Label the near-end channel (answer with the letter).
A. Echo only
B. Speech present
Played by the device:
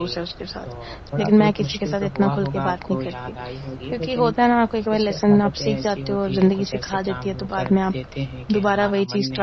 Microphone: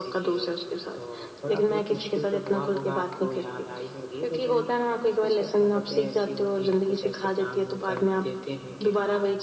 A